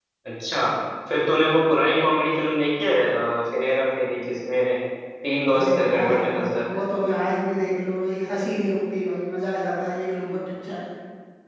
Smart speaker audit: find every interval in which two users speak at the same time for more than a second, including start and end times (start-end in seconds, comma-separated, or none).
5.5-6.8